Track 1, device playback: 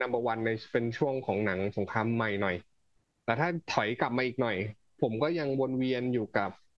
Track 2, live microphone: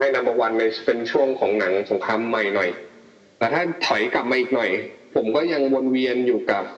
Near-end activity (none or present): none